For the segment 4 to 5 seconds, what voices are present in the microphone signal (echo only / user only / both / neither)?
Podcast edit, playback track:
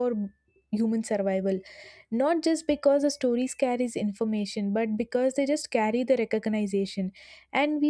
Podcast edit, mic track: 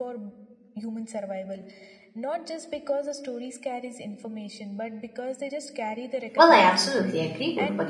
echo only